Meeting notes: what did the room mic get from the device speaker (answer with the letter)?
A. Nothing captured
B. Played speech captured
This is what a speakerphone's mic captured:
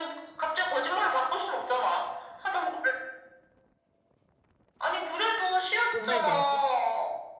B